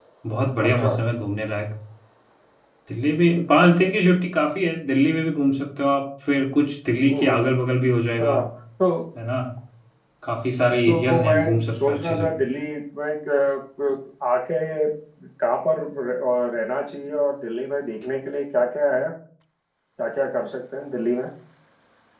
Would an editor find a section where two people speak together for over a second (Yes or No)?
Yes